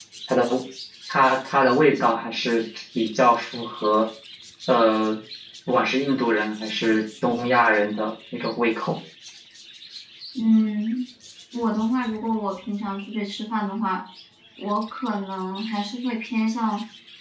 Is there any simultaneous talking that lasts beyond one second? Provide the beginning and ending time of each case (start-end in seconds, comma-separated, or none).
none